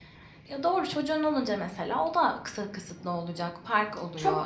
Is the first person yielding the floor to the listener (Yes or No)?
Yes